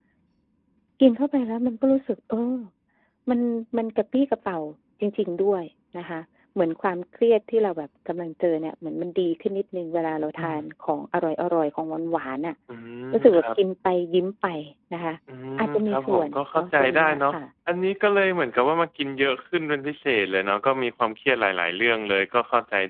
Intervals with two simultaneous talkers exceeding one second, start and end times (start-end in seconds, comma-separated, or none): 15.6-17.4